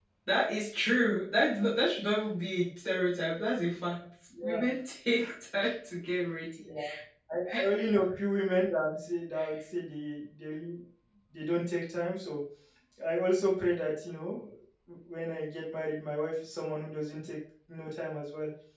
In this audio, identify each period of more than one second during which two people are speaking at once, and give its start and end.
none

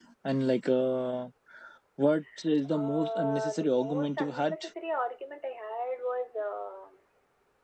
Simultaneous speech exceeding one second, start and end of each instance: 2.7-4.5

